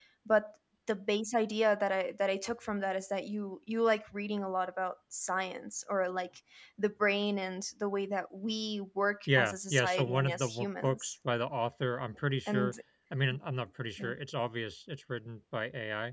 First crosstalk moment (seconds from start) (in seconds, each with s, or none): 9.4 s